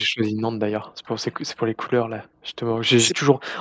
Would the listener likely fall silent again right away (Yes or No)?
Yes